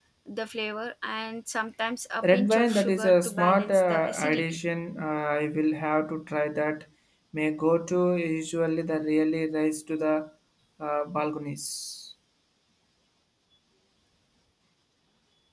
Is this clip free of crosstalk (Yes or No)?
No